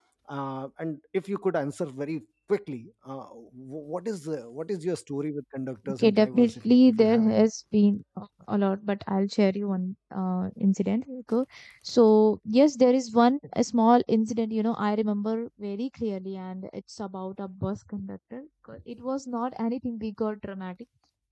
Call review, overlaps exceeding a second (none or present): present